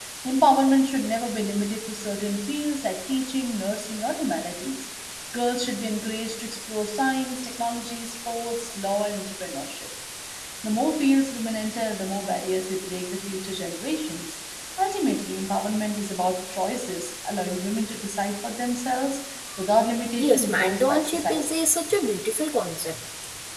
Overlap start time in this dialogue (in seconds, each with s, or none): 20.2 s